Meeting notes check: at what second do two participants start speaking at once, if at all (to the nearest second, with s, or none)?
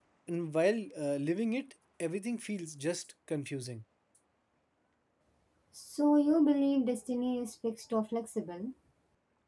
none